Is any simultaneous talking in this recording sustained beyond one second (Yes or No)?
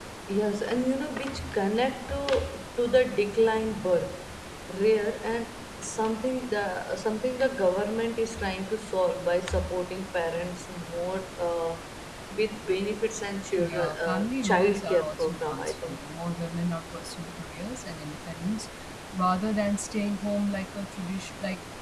Yes